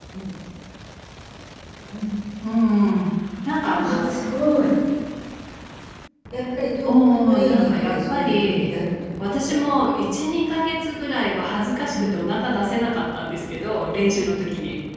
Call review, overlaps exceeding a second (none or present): present